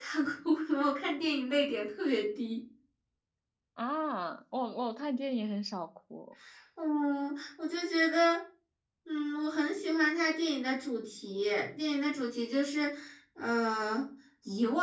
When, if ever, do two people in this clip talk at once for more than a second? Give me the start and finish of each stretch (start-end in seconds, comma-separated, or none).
none